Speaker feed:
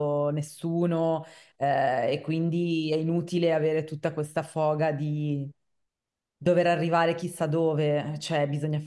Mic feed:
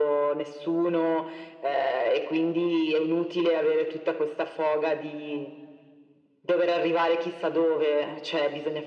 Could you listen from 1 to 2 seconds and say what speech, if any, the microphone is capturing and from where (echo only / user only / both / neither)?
echo only